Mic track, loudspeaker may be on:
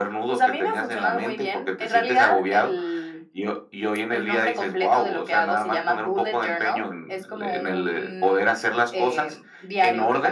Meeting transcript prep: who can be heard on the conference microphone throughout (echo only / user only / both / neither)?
echo only